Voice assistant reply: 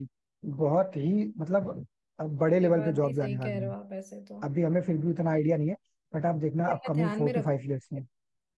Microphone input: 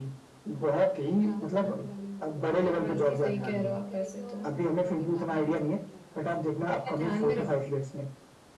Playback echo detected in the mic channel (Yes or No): Yes